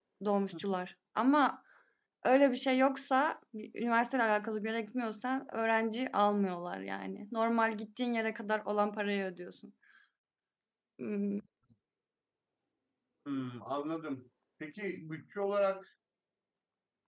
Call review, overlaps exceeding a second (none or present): none